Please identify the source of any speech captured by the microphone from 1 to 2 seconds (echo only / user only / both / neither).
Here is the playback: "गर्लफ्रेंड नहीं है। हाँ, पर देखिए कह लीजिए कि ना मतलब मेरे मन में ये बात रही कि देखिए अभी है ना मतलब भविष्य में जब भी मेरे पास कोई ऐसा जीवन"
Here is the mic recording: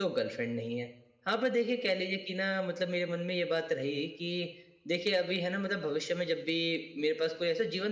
echo only